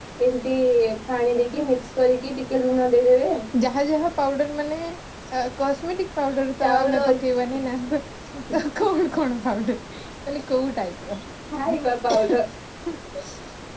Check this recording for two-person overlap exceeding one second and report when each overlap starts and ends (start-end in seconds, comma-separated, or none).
none